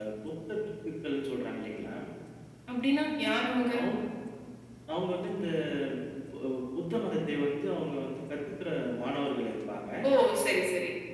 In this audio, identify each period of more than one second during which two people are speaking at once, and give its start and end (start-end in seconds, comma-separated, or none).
none